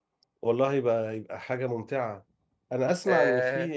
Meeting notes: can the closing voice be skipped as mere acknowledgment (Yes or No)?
Yes